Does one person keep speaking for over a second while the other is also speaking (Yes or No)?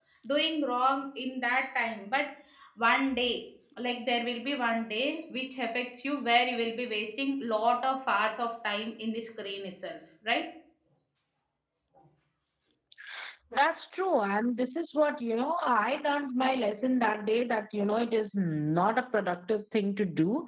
No